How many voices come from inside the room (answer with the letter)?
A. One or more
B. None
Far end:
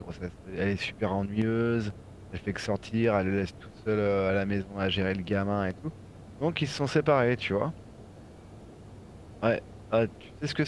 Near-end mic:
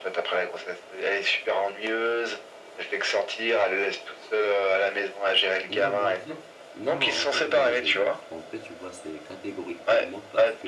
A